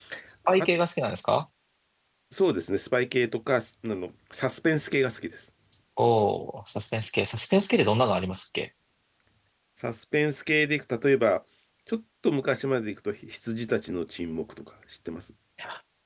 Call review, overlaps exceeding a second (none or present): none